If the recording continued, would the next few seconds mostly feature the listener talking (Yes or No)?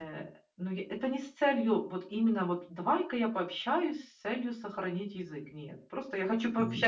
Yes